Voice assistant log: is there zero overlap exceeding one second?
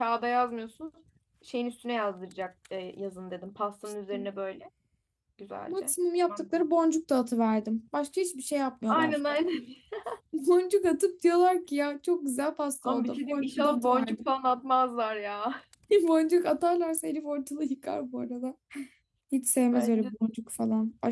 No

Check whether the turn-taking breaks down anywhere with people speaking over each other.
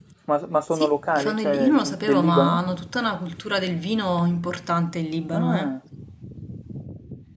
Yes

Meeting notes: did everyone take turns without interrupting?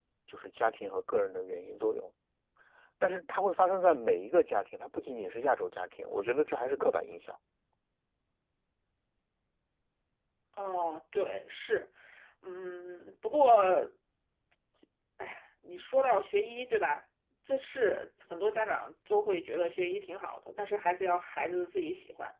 Yes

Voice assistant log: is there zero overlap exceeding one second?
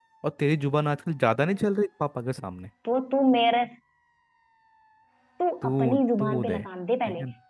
Yes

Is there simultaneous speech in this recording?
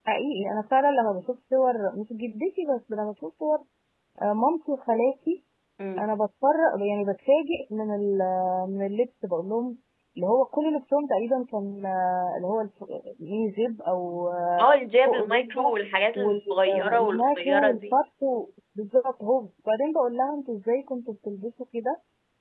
Yes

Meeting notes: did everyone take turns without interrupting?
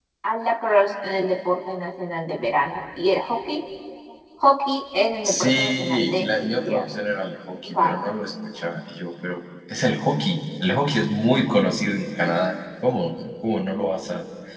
No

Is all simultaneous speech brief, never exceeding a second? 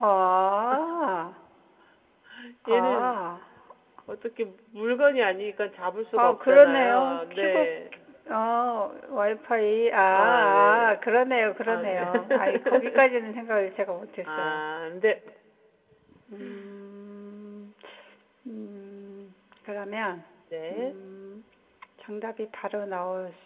No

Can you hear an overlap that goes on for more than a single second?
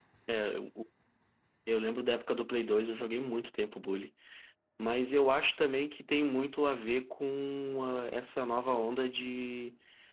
No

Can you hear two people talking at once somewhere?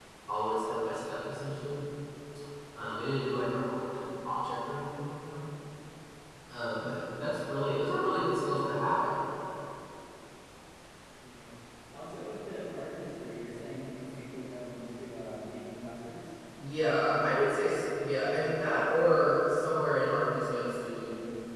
No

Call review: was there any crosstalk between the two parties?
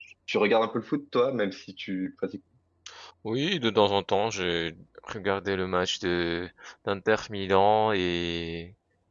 No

